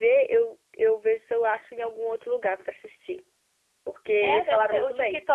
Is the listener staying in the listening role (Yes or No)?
No